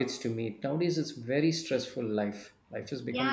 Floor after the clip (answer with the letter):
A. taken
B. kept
A